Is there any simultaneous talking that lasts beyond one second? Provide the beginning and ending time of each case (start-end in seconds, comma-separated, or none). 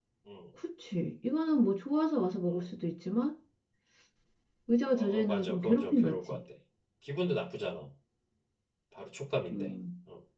4.9-6.4